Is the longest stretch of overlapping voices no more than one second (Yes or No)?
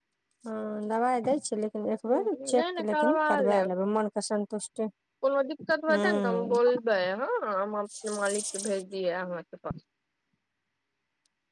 No